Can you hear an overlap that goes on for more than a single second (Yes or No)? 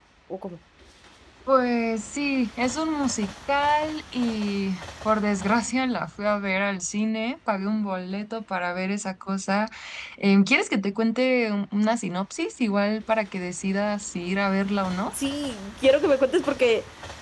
No